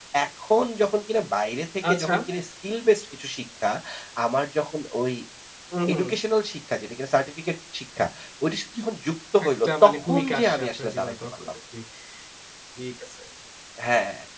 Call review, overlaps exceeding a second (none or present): present